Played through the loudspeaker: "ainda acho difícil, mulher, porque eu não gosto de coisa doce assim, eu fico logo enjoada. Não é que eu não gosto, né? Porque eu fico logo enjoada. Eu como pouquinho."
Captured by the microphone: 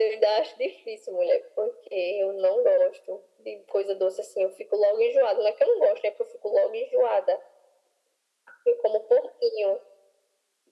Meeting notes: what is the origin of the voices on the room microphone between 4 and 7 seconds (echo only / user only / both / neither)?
echo only